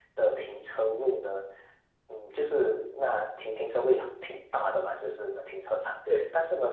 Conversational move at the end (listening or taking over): listening